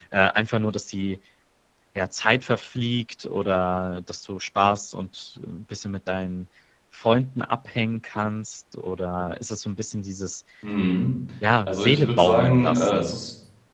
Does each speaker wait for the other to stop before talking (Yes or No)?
No